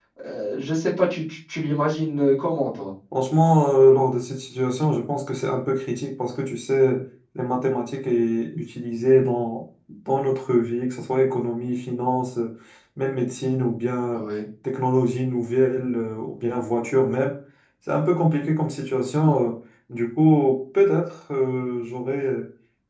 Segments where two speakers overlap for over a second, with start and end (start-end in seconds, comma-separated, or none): none